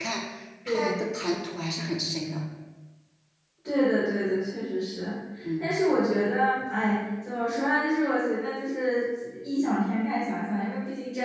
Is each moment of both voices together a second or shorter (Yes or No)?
Yes